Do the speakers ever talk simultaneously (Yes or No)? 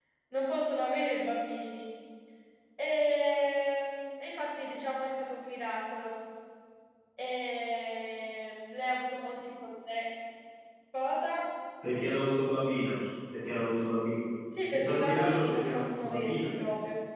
Yes